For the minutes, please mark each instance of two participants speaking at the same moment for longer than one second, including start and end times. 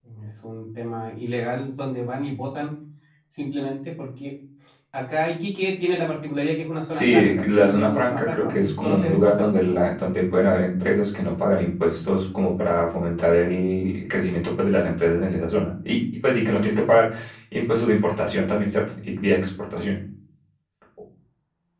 6.9-9.5

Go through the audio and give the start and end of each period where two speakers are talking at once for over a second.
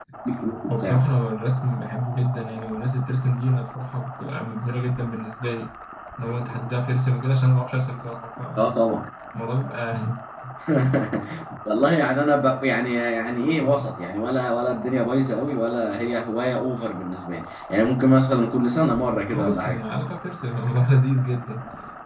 none

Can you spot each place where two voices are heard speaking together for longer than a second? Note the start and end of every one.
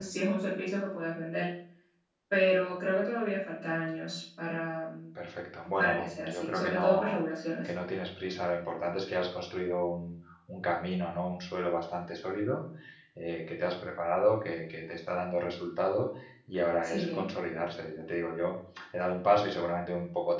5.8-7.2

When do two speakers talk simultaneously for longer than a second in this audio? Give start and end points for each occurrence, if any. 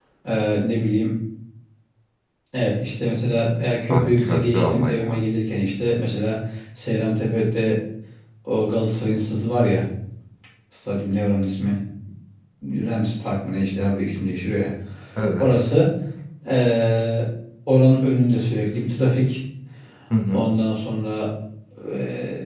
3.9-5.2

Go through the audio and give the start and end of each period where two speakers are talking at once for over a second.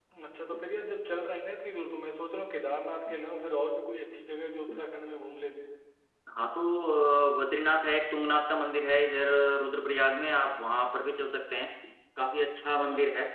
none

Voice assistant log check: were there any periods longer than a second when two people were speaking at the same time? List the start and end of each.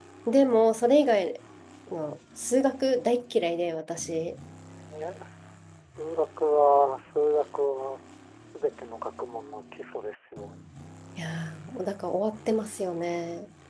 none

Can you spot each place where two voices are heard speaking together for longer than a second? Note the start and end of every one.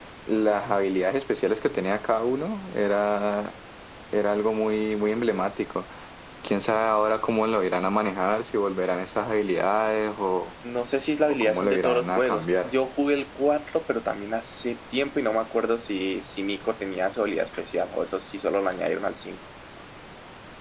11.3-12.7

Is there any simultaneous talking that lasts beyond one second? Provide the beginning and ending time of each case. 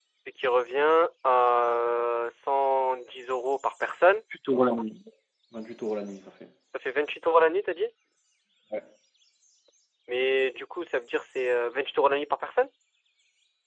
none

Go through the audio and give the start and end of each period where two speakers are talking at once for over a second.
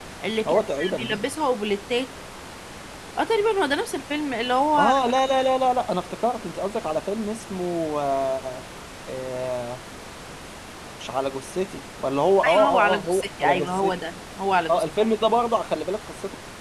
12.4-13.9

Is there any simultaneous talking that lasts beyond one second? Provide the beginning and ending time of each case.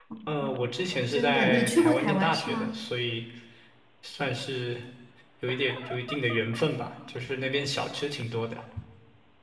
1.1-2.7

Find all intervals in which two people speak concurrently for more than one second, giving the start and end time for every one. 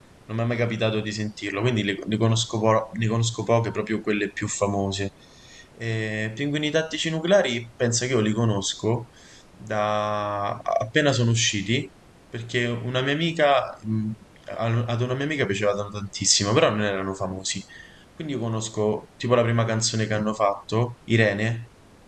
none

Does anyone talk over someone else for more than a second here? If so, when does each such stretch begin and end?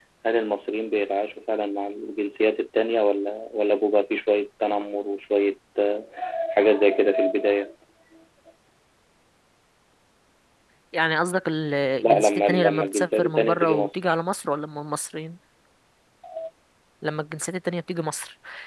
12.0-14.0

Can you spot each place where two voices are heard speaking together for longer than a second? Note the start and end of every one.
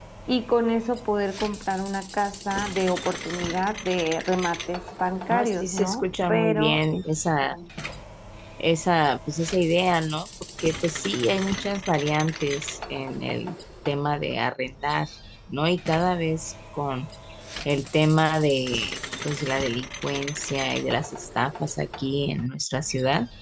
5.3-7.0

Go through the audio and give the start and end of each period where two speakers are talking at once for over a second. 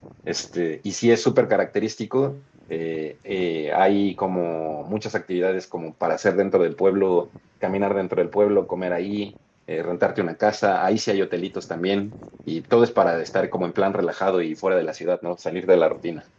none

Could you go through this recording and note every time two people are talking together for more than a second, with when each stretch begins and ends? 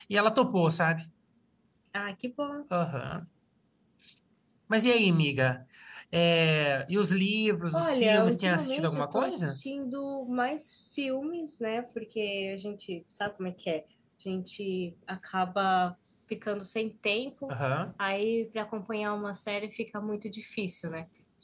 7.7-9.6

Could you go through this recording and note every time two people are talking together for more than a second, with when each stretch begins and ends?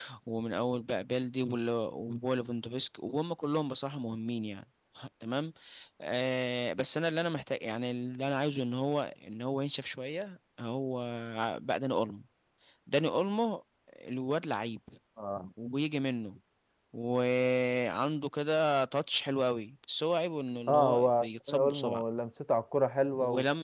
20.7-22.0

